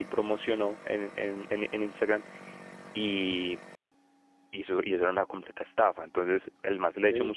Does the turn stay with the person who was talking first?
Yes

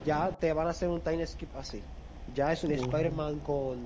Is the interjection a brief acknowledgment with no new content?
Yes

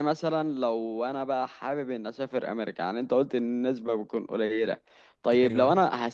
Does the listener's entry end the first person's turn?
No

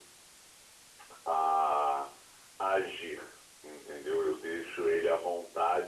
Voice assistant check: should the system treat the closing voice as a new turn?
No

